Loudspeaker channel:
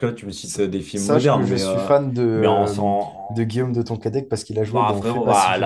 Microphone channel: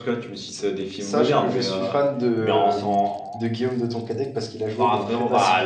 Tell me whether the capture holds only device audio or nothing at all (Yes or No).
Yes